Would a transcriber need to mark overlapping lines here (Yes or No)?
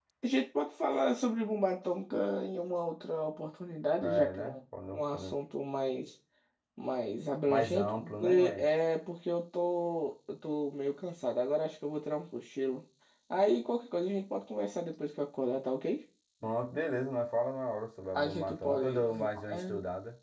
Yes